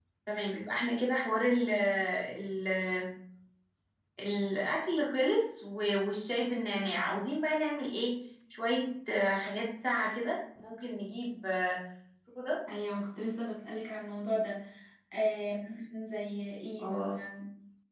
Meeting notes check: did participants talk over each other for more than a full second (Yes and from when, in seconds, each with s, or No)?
No